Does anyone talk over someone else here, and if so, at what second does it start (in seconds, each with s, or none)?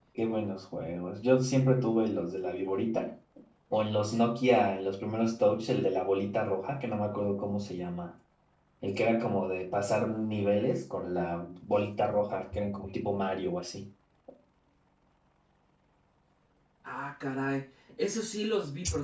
none